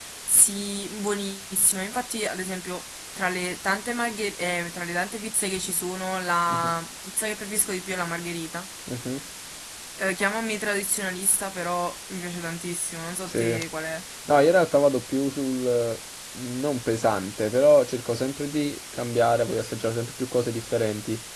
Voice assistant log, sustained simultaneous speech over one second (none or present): none